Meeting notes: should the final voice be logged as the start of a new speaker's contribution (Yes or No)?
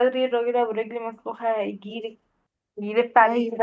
No